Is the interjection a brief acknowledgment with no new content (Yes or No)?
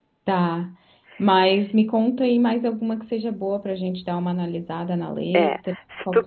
No